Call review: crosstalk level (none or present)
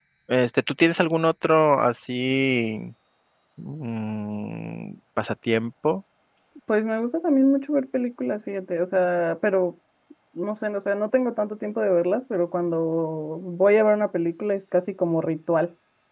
none